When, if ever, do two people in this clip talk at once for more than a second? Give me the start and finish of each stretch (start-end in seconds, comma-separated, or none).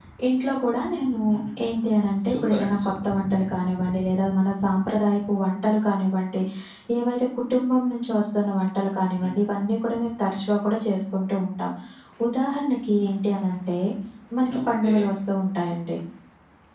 1.6-2.9